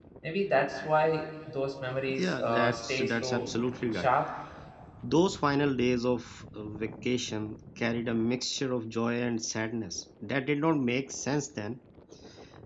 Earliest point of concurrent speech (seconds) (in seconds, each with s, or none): 2.1 s